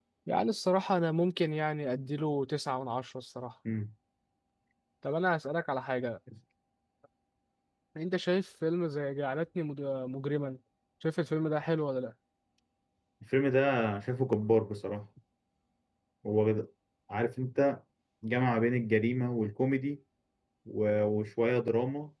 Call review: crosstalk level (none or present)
none